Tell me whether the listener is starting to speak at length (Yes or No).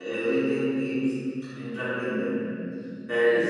No